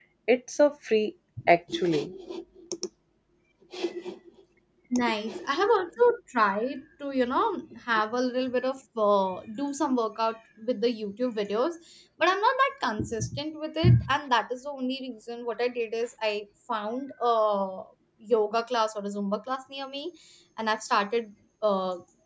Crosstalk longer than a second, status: none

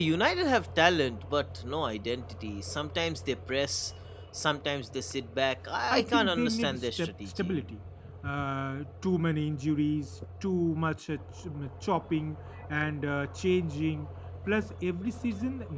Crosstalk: present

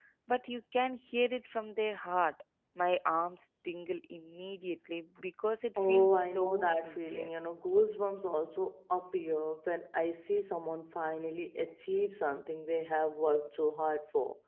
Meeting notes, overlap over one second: present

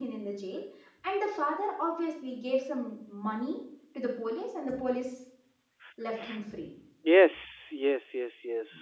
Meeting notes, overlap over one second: none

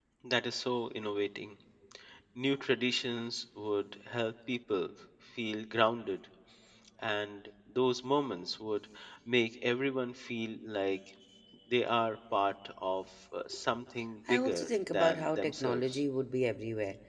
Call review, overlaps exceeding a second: present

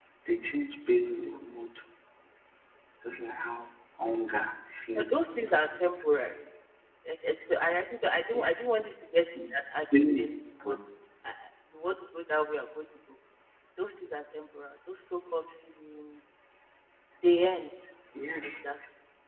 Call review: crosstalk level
present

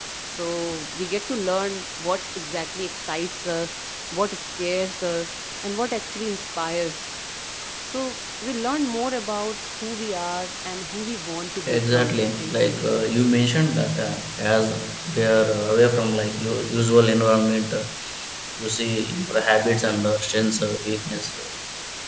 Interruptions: present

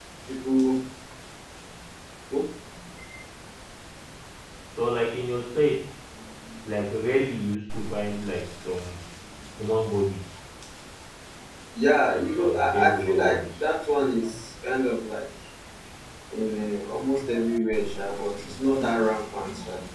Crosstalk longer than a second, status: present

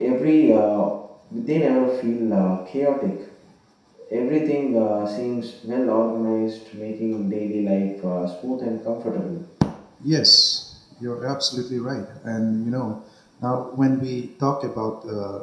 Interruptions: none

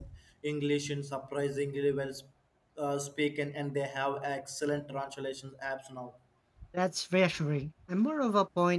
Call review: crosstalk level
none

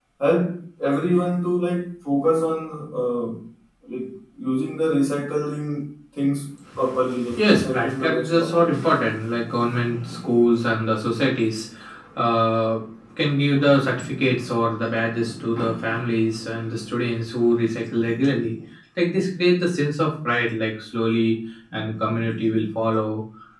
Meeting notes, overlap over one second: present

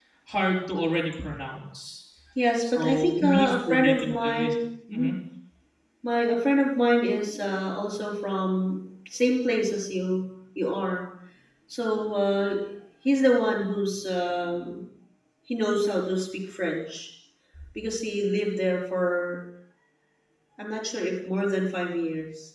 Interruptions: present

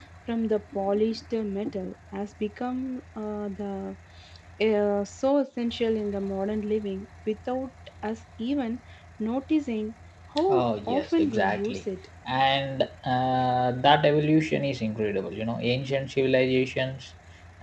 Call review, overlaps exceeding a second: present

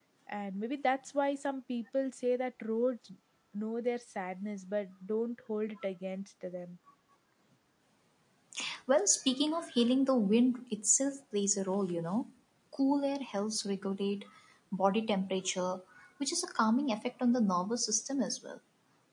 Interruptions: none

